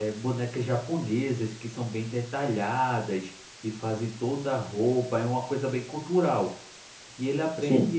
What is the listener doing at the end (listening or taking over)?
listening